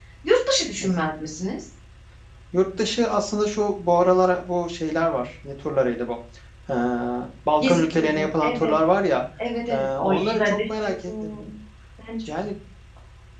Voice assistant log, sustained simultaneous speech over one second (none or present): present